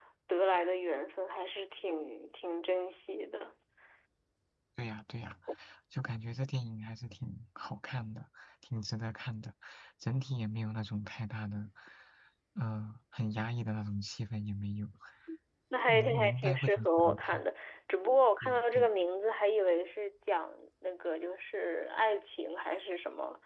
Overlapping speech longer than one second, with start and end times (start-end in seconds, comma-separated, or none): 15.9-17.4